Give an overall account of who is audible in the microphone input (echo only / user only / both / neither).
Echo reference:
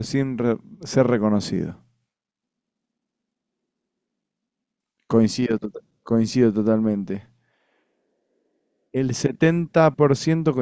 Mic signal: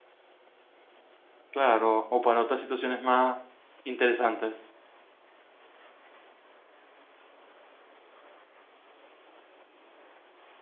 user only